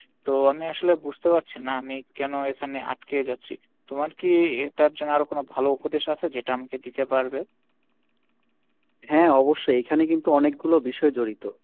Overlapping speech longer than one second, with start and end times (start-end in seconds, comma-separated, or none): none